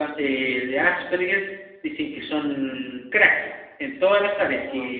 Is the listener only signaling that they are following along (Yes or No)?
Yes